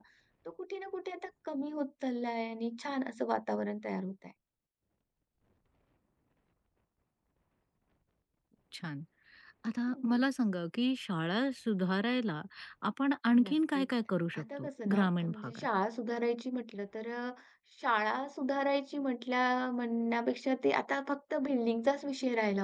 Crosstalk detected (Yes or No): Yes